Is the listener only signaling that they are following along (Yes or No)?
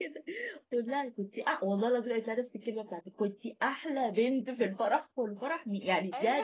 Yes